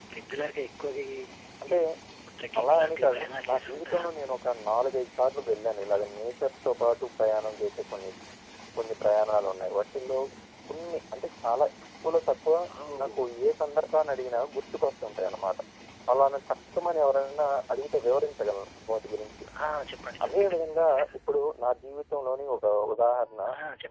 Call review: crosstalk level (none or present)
present